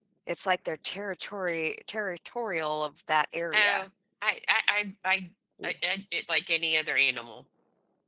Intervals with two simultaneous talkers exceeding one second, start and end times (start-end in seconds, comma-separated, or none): none